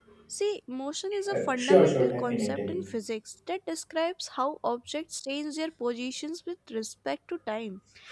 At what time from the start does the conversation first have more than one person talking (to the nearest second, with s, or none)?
1 s